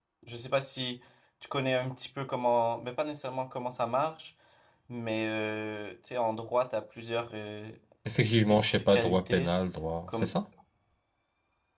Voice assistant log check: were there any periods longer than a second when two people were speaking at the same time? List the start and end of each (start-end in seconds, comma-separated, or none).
8.3-9.5